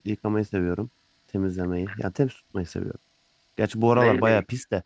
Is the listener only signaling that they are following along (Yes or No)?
No